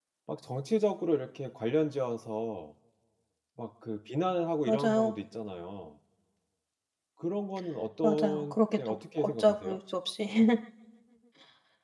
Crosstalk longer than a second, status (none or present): present